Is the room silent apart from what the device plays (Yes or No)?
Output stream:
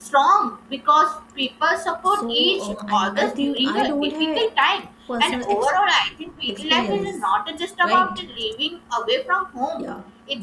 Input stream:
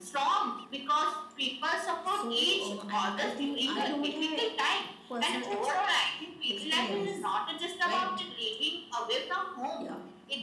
Yes